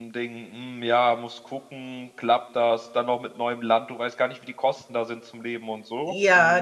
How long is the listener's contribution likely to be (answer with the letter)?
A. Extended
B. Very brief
A